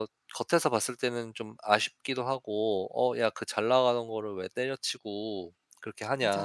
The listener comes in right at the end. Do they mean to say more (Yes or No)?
Yes